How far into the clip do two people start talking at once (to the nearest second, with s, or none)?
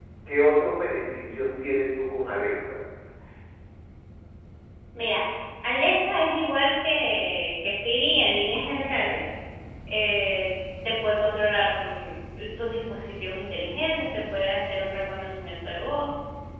none